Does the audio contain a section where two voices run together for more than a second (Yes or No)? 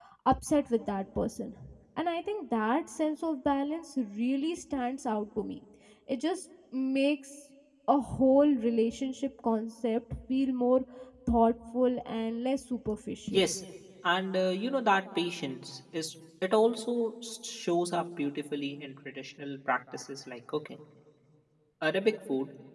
No